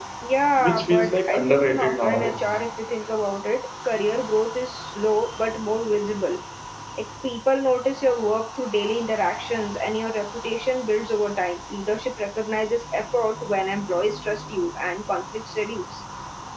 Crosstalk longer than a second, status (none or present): present